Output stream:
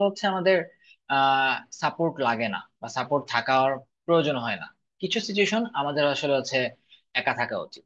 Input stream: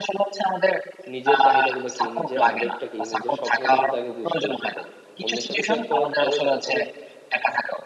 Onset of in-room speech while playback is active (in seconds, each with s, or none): 1.1 s